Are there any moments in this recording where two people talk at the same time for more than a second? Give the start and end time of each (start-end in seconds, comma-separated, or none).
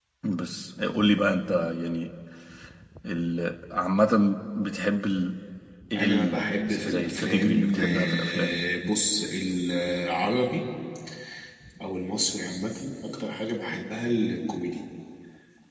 6.0-8.6